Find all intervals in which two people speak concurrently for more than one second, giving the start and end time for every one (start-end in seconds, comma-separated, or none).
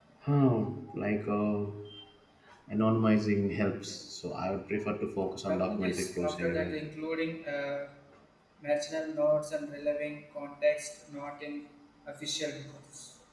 5.5-6.8